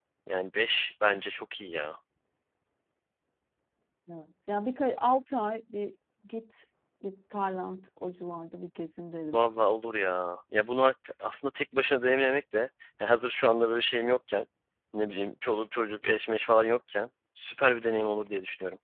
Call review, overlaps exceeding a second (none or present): none